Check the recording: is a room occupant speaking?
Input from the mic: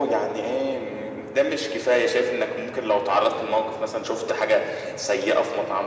No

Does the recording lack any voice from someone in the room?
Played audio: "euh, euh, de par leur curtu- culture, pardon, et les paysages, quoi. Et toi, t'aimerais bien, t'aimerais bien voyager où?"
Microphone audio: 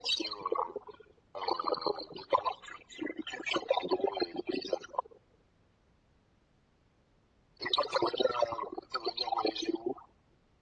Yes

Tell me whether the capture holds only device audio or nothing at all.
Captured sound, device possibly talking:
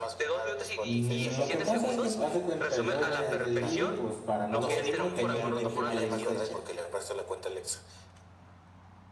No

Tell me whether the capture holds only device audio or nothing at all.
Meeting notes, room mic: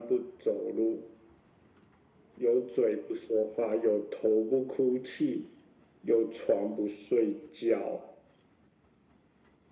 Yes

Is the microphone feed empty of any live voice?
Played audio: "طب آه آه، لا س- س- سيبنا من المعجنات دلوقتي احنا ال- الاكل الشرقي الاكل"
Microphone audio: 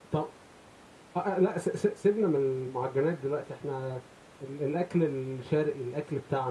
Yes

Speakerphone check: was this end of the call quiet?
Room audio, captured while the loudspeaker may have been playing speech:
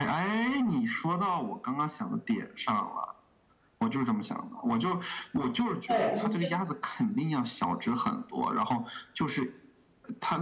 No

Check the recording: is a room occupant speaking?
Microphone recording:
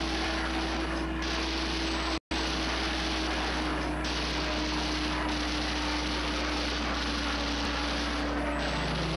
No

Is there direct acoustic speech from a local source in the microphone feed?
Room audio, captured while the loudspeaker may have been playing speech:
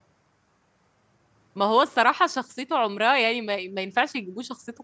Yes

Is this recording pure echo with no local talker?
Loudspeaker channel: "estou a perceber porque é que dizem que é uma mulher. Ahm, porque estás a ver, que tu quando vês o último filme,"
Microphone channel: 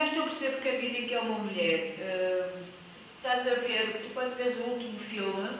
Yes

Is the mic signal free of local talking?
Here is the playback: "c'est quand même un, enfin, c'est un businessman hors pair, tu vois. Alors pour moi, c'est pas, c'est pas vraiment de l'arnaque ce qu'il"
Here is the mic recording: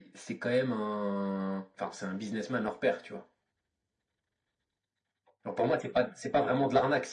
Yes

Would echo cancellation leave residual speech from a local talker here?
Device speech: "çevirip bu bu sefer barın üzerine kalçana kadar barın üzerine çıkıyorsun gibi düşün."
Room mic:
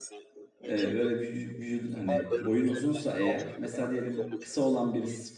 Yes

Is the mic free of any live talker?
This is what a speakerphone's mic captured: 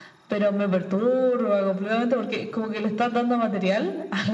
Yes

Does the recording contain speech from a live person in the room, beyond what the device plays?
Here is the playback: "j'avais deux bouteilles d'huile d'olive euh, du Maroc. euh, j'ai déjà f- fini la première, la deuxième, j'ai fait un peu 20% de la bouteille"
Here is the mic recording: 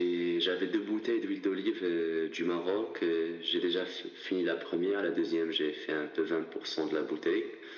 No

